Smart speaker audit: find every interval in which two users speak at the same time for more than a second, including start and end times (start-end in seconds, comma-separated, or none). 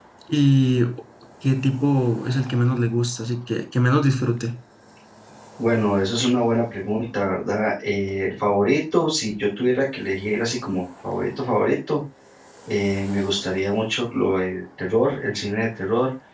none